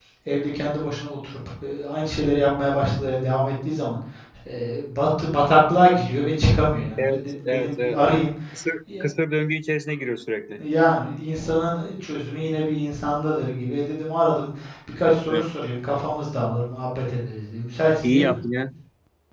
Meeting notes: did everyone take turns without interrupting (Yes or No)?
No